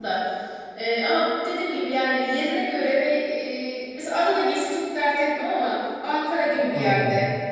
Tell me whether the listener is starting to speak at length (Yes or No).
No